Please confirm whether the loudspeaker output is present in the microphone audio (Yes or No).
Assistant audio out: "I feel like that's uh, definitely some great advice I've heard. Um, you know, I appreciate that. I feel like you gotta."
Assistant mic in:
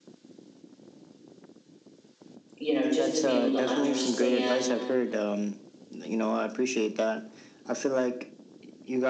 Yes